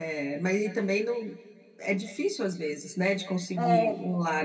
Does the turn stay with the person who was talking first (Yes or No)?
No